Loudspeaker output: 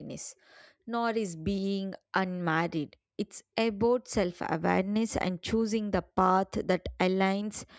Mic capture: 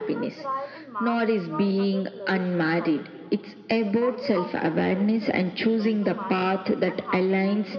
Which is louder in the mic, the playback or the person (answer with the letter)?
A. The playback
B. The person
A